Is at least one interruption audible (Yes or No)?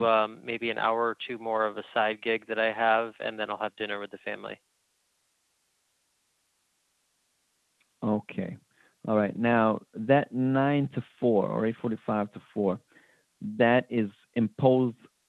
No